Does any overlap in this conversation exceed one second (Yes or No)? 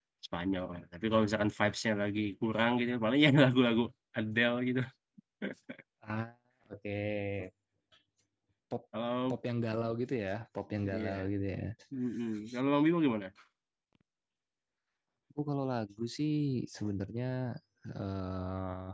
No